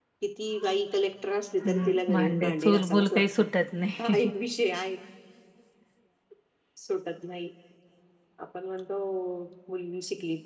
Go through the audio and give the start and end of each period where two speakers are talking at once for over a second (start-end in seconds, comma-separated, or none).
1.6-3.2